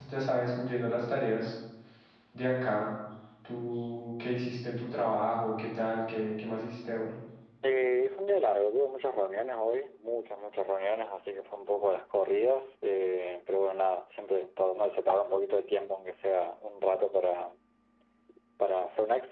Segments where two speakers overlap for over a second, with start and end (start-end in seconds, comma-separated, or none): none